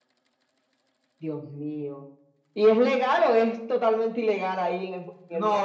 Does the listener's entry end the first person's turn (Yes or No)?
Yes